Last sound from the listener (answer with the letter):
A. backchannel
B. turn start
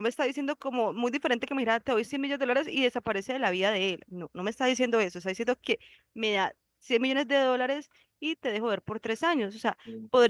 A